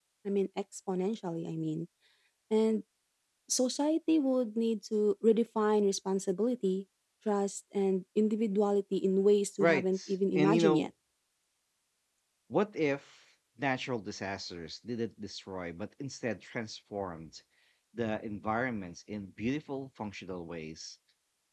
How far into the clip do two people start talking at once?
10 s

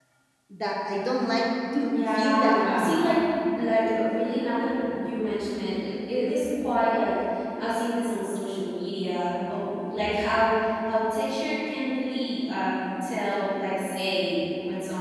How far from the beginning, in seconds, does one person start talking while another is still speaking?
2 s

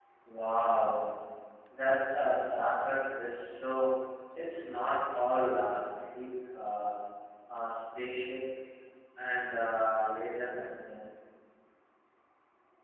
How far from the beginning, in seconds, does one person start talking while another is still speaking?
none

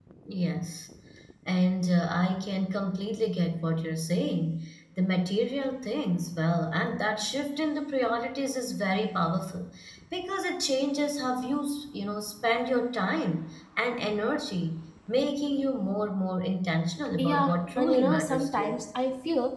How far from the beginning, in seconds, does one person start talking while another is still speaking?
17 s

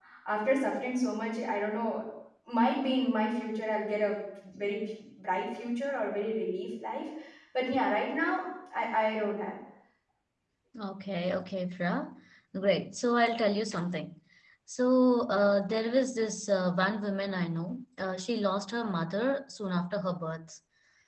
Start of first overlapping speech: none

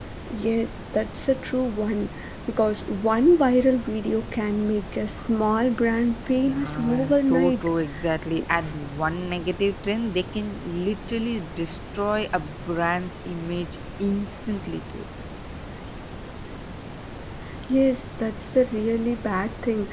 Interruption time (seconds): 6 s

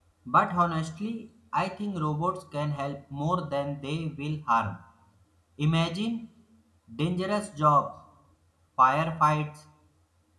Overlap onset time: none

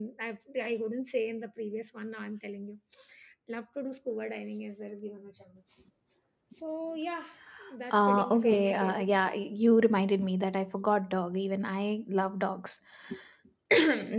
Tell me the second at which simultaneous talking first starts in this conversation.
8 s

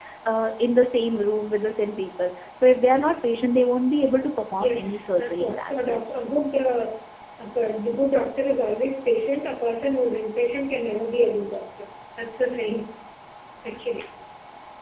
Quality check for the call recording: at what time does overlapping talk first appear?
5 s

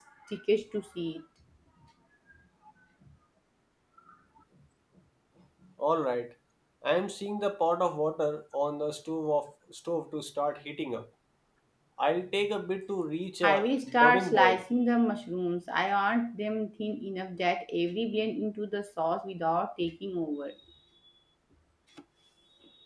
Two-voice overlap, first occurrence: 13 s

